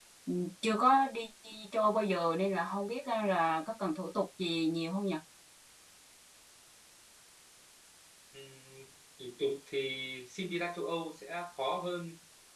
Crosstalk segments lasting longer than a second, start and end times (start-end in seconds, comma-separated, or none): none